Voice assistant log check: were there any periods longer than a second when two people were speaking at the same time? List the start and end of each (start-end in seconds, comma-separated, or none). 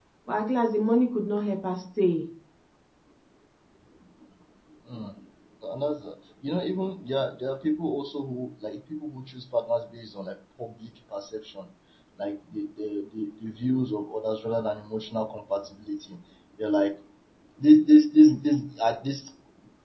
none